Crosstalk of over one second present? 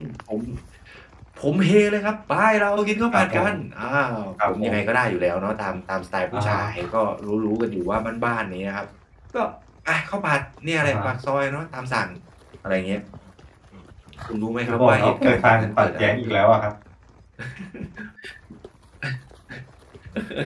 Yes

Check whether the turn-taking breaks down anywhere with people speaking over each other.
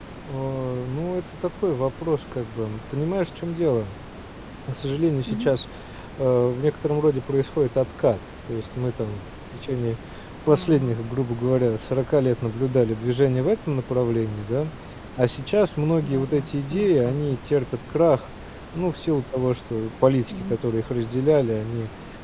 Yes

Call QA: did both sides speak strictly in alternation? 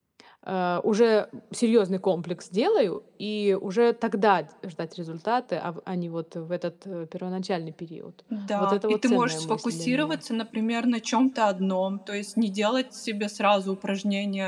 No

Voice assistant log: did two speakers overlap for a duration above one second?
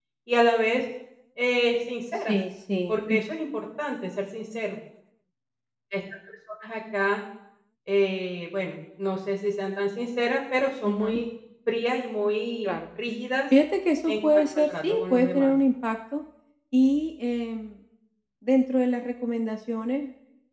Yes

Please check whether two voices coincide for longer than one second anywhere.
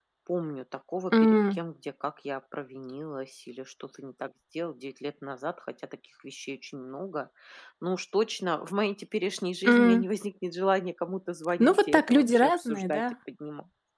Yes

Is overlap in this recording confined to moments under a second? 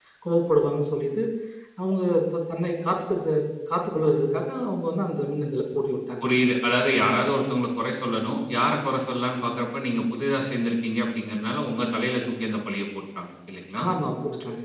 Yes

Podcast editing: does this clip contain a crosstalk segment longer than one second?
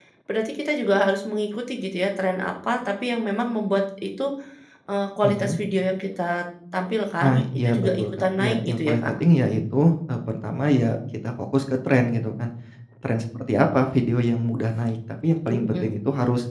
Yes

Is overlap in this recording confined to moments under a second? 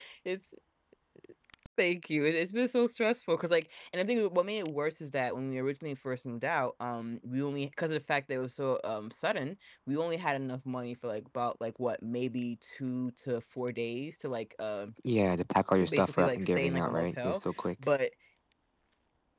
No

